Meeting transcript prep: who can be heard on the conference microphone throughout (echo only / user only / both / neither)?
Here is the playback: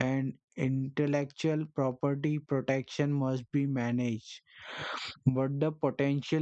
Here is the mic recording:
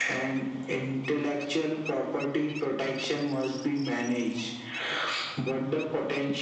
echo only